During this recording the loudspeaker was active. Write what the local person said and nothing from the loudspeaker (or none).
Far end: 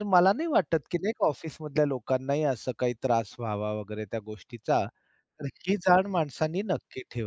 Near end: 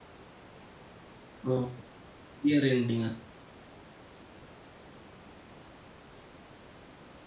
हो, हो यिअर एंडिंग असतं.